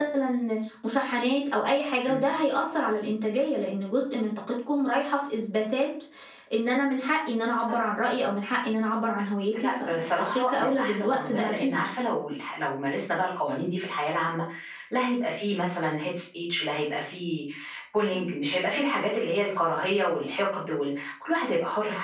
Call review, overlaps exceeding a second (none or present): present